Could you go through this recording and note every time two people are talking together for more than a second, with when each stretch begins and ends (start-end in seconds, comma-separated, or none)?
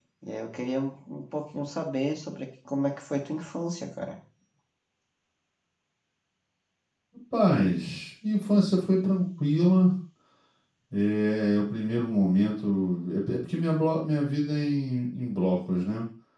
none